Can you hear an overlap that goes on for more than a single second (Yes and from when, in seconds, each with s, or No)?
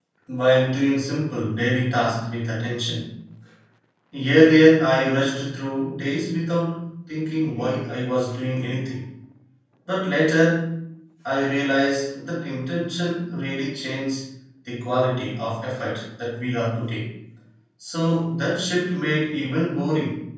No